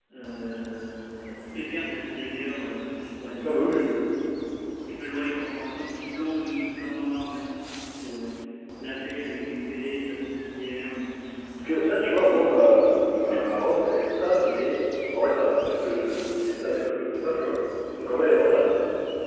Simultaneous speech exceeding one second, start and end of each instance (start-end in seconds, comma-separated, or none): none